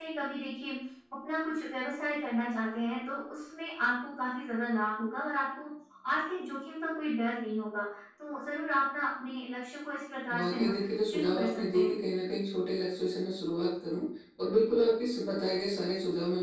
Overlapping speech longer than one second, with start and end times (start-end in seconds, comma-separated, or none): 10.4-12.0